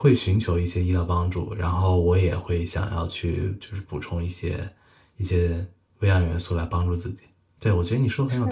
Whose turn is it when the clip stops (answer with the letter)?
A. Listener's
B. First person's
B